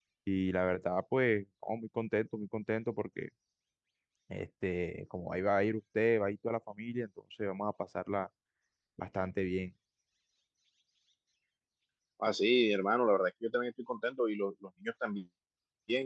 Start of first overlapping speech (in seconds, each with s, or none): none